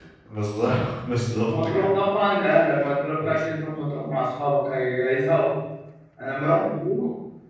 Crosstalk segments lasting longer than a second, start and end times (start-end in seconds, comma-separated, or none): none